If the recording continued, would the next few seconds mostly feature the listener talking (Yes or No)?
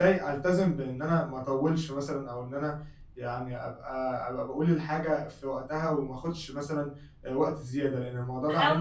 Yes